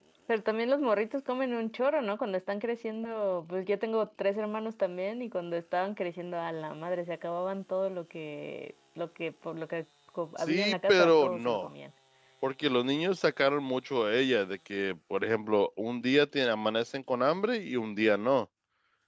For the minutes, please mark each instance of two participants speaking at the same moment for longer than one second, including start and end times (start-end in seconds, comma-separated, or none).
10.4-11.7